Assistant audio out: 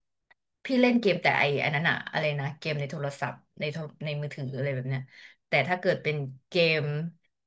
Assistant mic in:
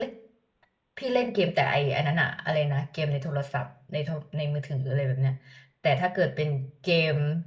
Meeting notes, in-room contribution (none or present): none